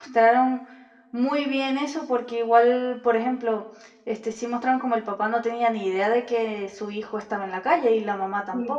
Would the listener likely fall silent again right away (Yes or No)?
No